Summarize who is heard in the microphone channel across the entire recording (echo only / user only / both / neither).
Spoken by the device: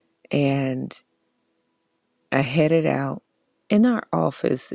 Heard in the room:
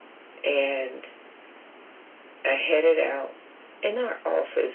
echo only